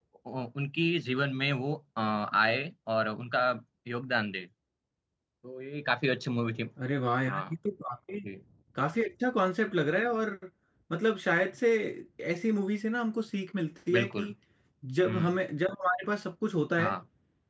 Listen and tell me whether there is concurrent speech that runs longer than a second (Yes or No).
No